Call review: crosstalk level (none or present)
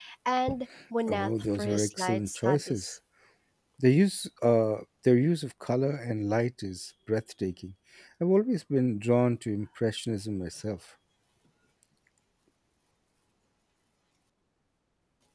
present